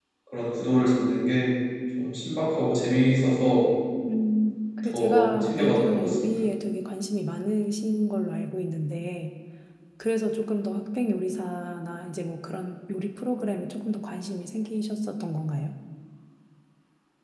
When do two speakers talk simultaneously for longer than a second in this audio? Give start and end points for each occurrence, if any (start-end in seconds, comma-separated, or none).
4.9-6.4